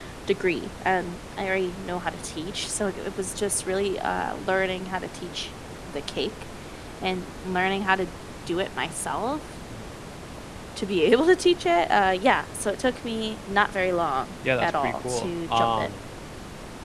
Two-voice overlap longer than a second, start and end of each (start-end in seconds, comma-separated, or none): 14.6-15.9